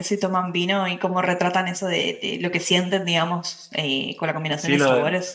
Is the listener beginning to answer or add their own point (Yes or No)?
Yes